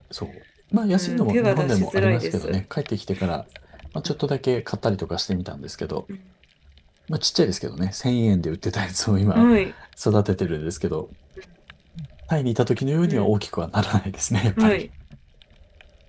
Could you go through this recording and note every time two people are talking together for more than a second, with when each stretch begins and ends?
0.9-2.6

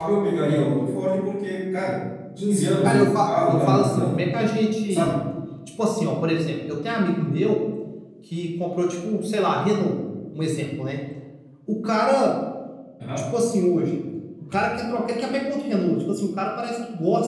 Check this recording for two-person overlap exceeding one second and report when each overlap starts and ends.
2.8-4.2

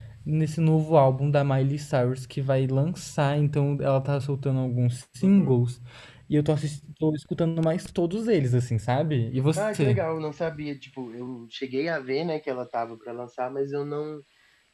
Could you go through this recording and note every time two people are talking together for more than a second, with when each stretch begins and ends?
none

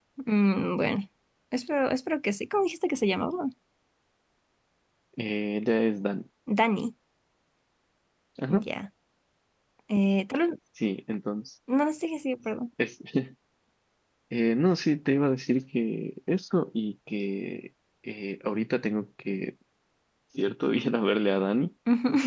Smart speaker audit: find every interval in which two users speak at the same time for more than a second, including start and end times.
none

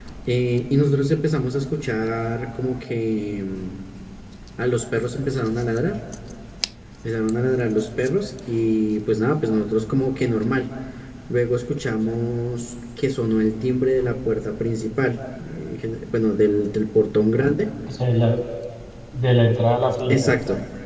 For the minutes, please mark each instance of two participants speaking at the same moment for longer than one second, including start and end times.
none

